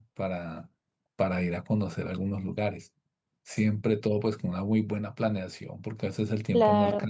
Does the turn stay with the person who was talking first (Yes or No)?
Yes